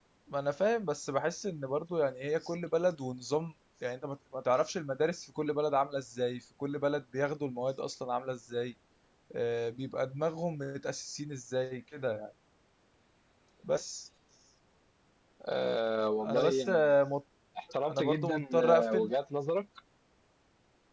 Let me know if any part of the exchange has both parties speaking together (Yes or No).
Yes